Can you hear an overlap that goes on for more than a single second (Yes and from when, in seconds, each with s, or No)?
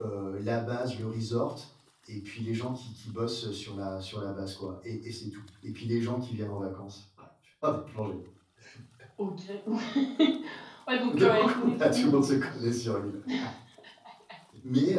Yes, from 11.1 s